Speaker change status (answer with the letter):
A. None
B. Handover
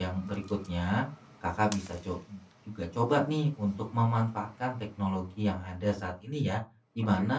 A